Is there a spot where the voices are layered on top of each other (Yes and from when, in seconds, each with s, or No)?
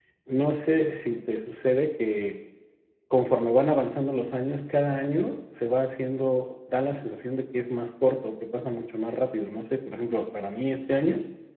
No